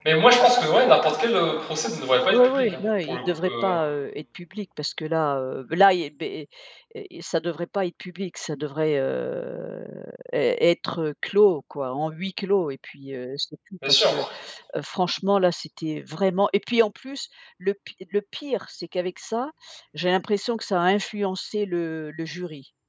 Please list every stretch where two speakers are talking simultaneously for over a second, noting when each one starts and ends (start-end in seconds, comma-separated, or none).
2.3-3.8